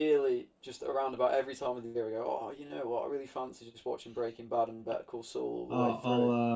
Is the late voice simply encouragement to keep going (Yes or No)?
No